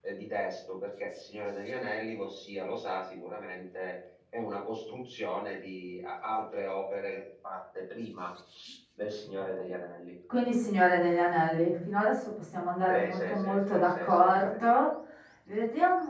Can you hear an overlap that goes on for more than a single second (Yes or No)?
Yes